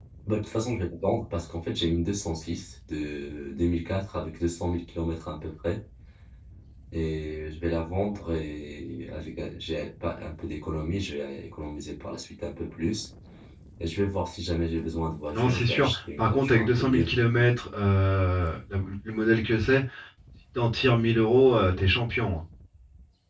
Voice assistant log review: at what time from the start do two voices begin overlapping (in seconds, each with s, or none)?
15.3 s